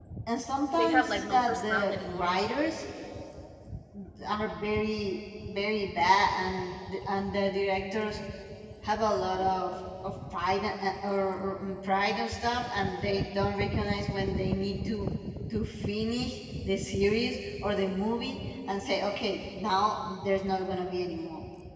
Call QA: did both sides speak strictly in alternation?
No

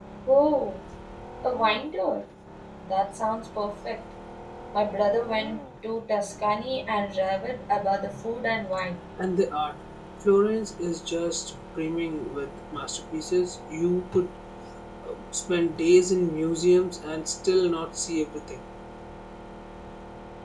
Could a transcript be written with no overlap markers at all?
Yes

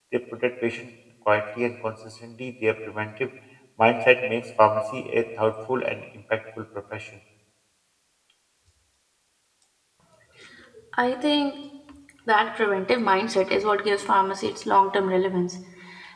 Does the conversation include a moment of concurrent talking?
No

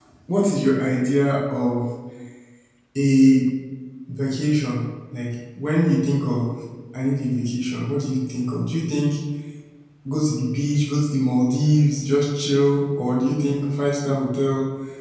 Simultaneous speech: No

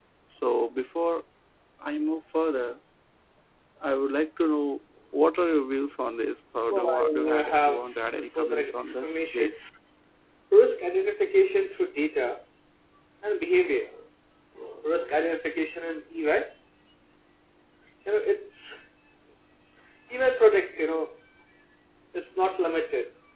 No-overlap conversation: No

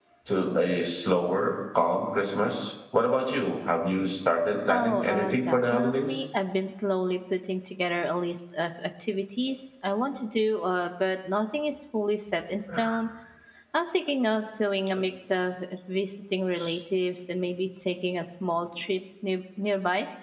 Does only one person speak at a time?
No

